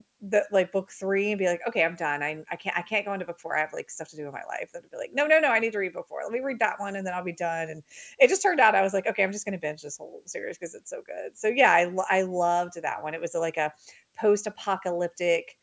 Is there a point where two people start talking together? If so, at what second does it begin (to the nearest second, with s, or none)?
none